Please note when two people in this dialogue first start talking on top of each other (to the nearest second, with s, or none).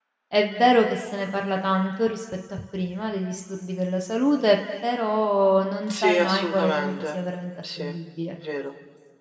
6 s